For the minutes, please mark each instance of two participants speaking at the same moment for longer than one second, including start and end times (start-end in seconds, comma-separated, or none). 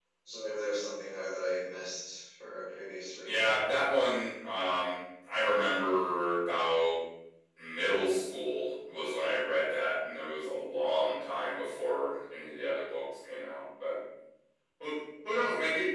none